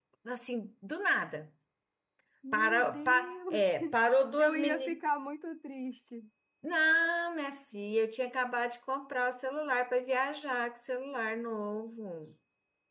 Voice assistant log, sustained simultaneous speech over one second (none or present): present